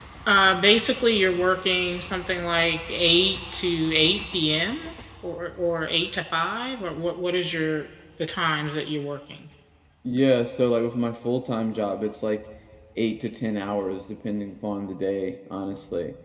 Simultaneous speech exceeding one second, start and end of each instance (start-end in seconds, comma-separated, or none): none